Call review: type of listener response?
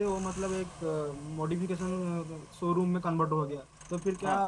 listening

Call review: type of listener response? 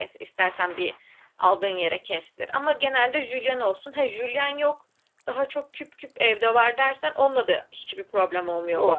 taking over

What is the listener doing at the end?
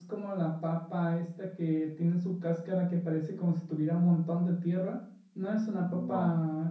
listening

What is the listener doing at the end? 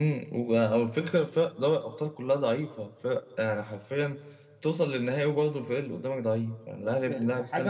taking over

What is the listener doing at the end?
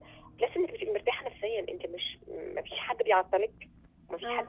taking over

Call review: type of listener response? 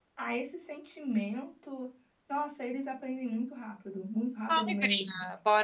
taking over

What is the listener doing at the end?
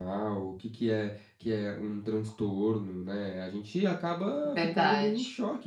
listening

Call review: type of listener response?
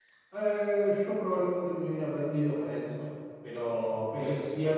listening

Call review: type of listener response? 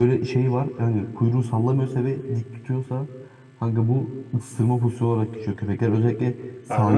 listening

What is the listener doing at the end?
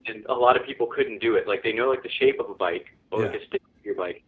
listening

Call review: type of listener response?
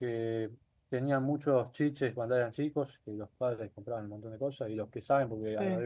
listening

